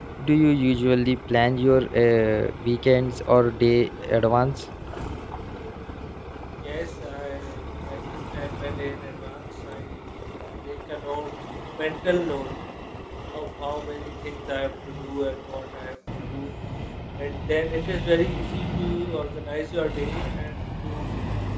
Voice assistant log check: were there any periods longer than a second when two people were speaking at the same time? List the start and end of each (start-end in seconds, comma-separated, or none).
none